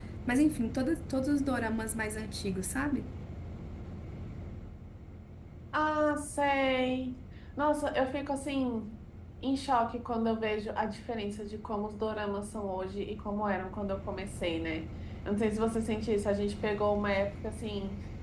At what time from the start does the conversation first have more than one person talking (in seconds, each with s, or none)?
none